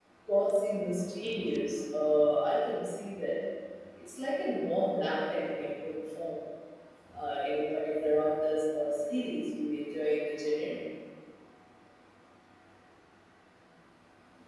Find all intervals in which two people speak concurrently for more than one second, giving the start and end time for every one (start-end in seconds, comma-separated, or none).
none